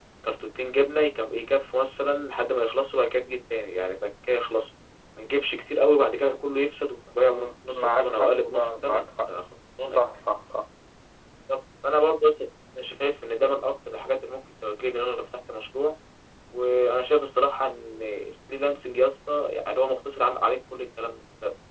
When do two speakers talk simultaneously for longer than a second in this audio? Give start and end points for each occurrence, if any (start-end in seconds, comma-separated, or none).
7.2-9.1